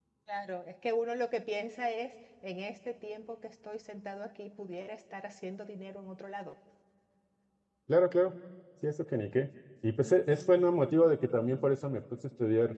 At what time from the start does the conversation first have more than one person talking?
none

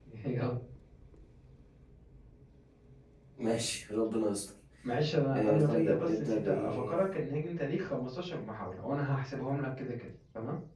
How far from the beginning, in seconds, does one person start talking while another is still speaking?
5.3 s

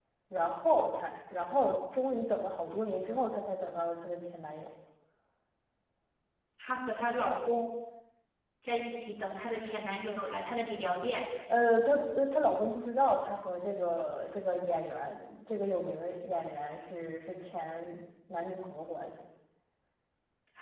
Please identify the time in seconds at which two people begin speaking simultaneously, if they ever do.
none

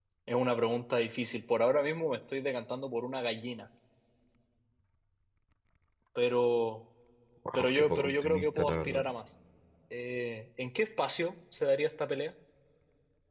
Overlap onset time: 7.6 s

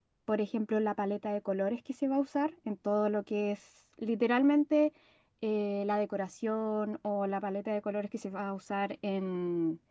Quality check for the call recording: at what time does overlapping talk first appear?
none

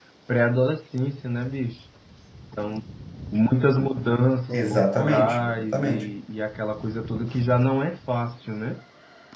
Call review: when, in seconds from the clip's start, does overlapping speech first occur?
4.5 s

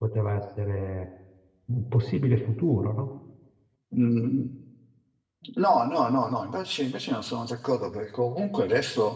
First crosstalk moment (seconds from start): none

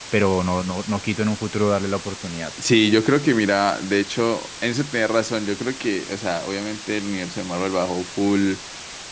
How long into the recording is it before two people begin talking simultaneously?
none

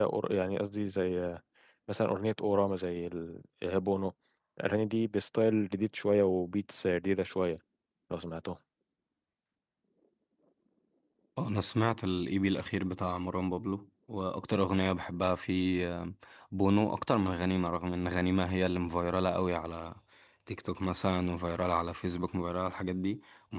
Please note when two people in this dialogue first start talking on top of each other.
none

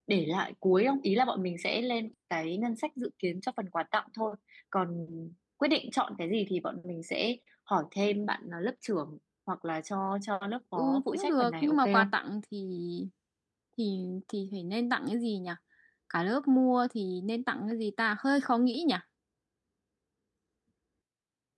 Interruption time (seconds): 10.8 s

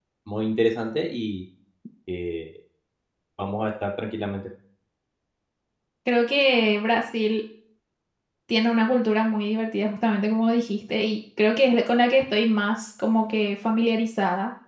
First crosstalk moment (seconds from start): none

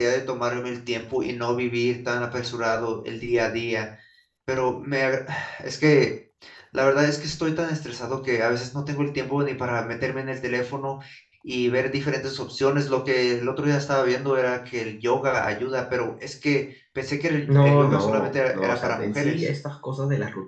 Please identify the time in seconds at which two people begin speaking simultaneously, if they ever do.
17.5 s

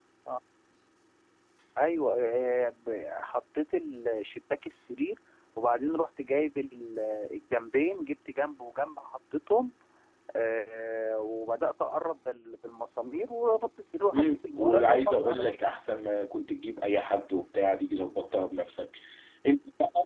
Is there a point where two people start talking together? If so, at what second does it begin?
14.1 s

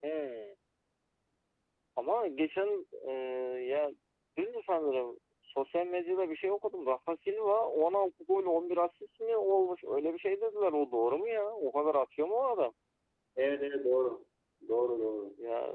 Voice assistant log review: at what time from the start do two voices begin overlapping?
none

